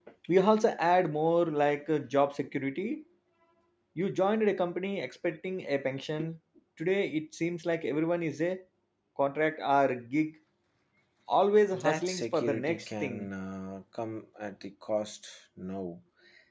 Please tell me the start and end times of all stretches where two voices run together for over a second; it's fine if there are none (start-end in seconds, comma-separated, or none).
11.7-13.3